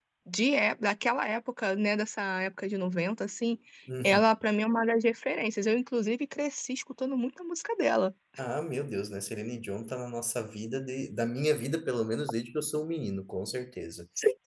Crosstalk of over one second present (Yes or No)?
No